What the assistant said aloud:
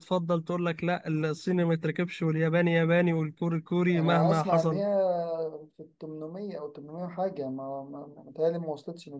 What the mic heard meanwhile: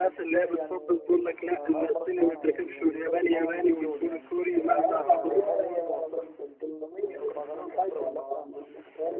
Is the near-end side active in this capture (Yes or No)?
Yes